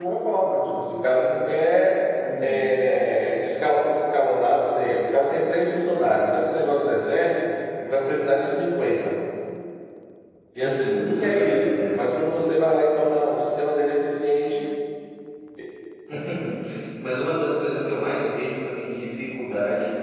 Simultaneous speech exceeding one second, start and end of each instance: 10.6-12.3

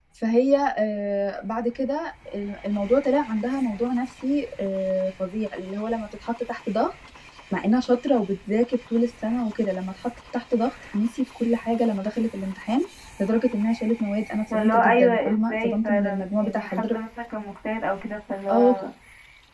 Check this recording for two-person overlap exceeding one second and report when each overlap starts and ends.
14.5-16.9

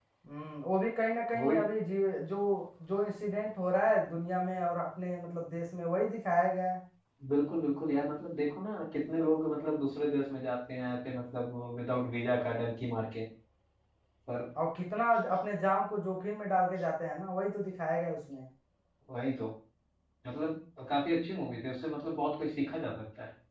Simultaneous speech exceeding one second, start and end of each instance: none

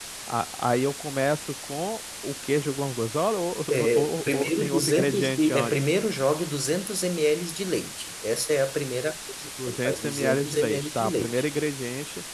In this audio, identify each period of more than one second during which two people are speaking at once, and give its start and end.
4.0-5.7, 9.7-11.4

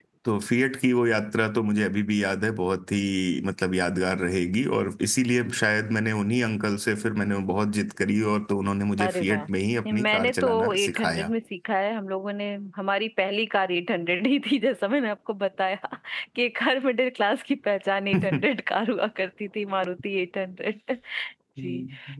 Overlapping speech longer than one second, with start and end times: 9.9-11.3

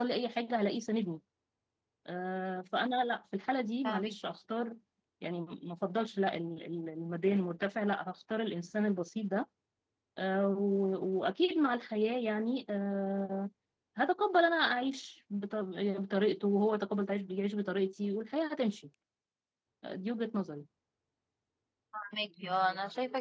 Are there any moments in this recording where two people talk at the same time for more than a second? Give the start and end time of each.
none

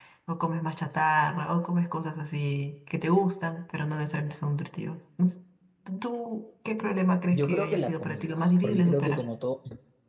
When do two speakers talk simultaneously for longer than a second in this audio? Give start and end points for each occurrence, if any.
7.3-9.2

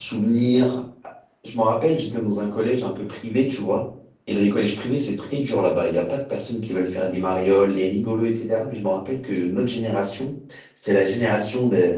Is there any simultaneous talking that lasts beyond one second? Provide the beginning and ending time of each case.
none

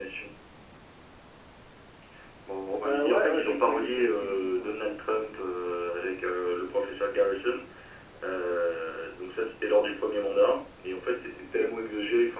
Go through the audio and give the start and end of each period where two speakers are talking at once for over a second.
2.8-4.7

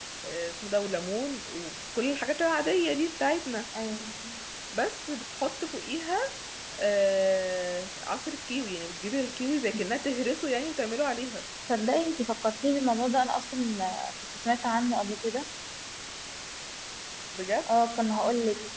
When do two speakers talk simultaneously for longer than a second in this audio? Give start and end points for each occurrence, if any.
none

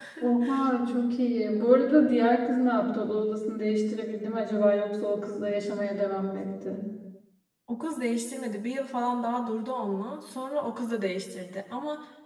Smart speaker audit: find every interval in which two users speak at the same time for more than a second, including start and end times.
none

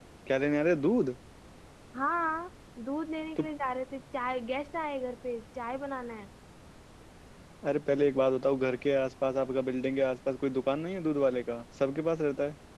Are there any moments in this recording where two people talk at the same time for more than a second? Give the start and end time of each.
none

